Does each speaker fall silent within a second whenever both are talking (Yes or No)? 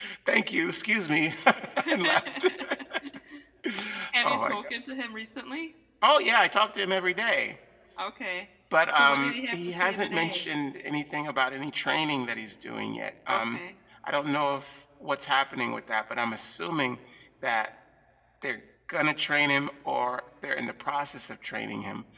No